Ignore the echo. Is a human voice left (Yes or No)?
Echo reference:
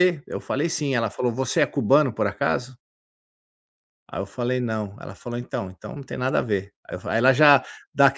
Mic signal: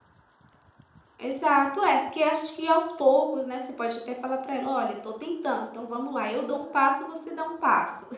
Yes